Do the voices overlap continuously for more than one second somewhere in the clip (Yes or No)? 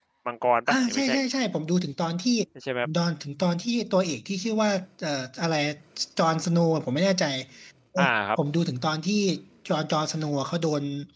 No